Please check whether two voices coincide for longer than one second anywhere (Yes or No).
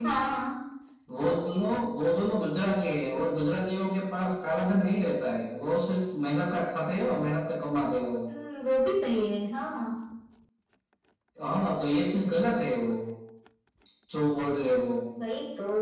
No